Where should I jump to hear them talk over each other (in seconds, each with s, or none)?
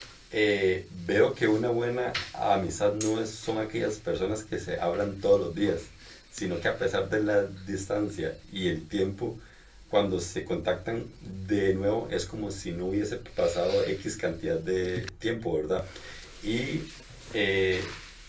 none